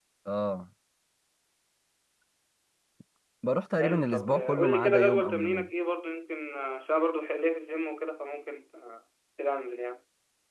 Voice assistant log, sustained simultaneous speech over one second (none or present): present